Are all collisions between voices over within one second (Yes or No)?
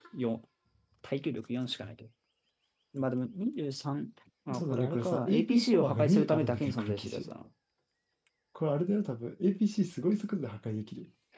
No